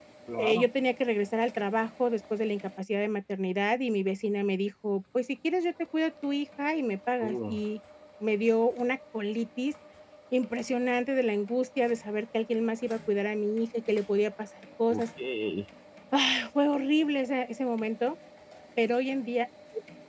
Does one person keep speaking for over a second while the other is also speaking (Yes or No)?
No